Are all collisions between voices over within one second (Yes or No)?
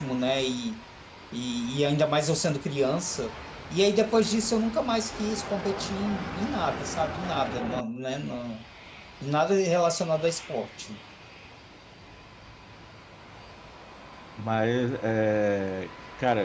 Yes